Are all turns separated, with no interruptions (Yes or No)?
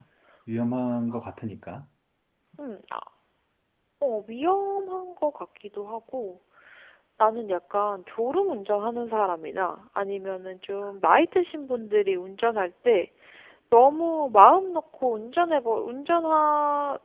Yes